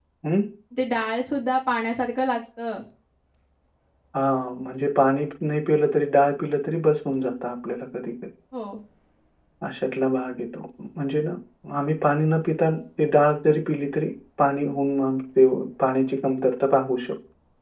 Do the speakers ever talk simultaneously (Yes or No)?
No